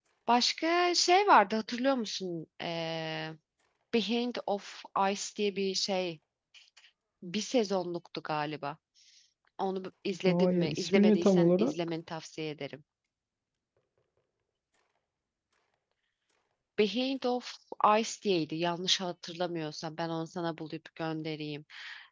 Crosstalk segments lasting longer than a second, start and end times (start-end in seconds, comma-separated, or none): 10.3-11.7